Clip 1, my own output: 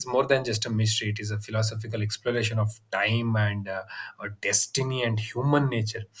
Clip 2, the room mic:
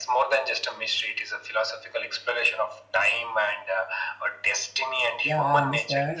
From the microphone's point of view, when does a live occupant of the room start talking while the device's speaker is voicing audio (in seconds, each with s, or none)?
5.2 s